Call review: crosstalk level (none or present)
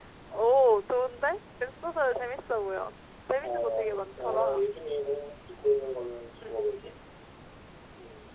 present